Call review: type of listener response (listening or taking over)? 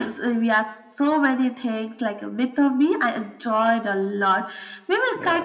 listening